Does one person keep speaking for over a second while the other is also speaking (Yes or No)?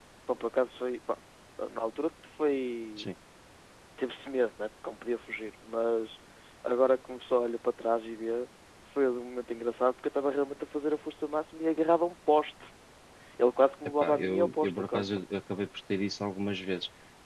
Yes